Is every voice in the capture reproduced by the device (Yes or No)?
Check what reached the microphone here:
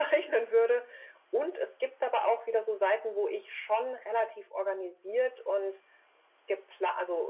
Yes